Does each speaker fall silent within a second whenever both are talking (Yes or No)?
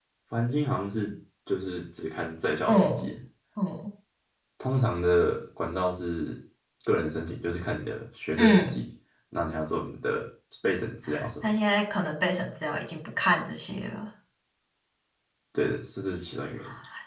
Yes